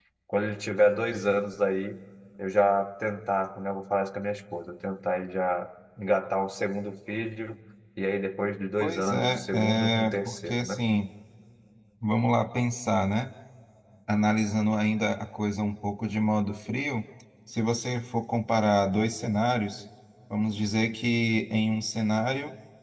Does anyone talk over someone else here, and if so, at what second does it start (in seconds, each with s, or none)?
8.8 s